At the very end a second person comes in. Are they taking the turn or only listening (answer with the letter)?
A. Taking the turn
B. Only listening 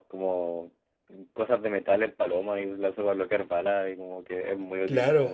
A